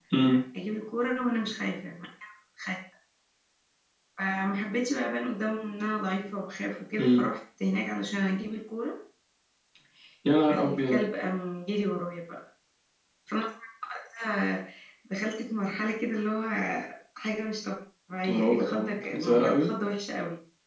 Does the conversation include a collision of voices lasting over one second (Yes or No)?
Yes